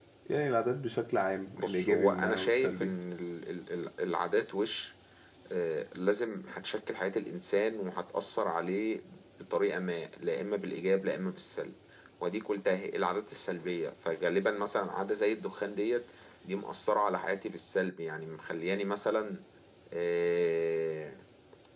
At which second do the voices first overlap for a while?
1.6 s

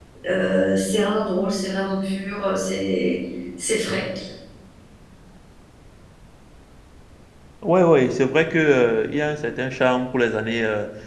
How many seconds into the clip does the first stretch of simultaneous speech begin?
none

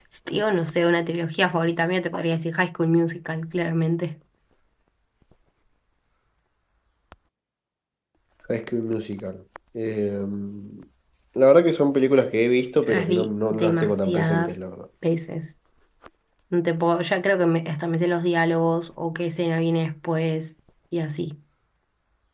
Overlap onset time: 12.9 s

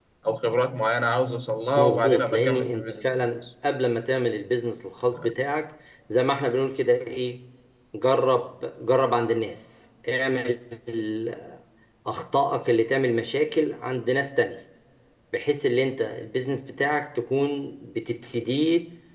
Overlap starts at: 1.8 s

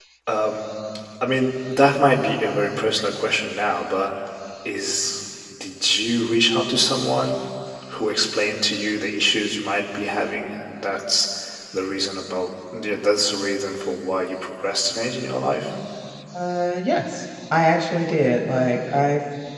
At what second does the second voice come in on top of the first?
none

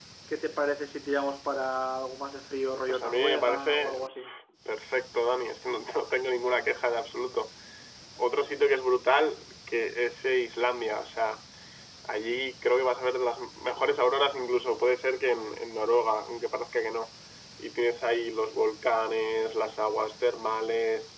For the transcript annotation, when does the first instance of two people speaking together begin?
2.9 s

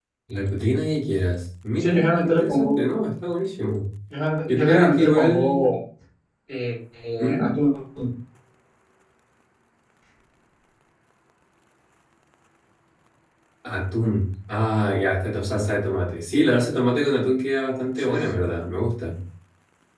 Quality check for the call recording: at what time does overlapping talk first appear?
1.8 s

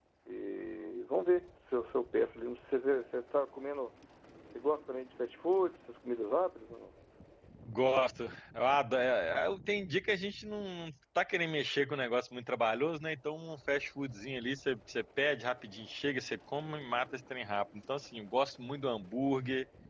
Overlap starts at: none

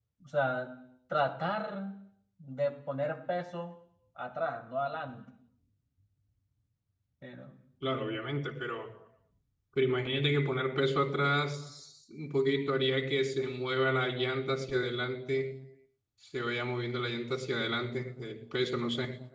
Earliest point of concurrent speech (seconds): none

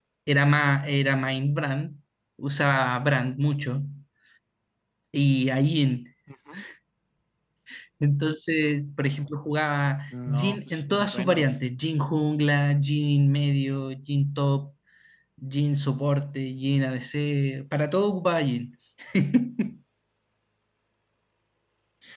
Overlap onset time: 10.1 s

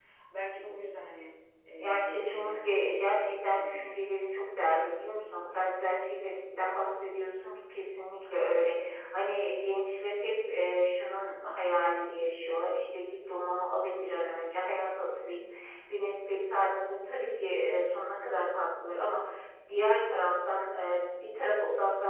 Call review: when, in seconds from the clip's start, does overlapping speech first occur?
1.8 s

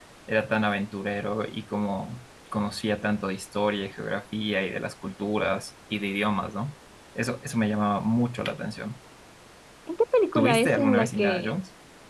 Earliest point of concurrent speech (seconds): 10.3 s

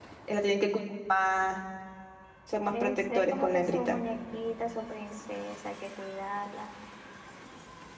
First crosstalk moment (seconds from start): 2.7 s

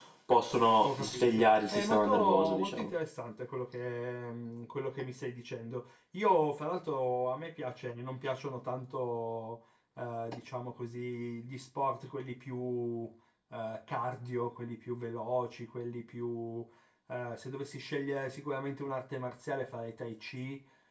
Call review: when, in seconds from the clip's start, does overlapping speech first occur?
0.8 s

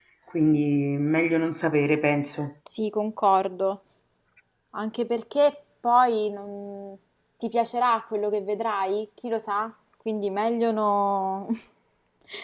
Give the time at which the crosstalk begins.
none

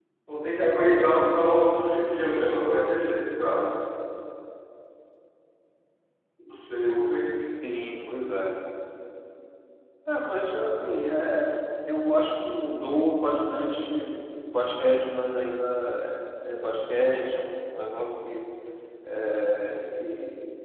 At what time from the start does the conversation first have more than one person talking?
none

